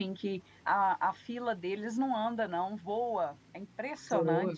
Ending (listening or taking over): taking over